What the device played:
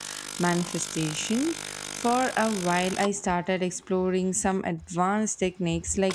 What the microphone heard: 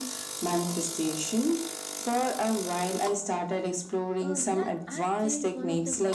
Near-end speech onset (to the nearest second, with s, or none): 4 s